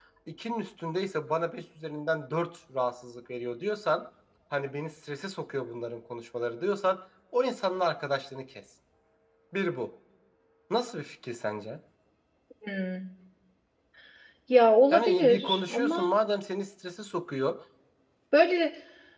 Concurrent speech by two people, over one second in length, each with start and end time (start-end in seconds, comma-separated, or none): 14.9-16.1